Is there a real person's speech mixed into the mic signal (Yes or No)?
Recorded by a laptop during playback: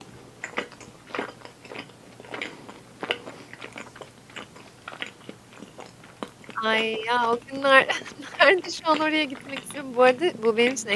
Yes